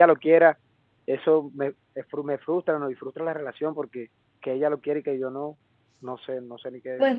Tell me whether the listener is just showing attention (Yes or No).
No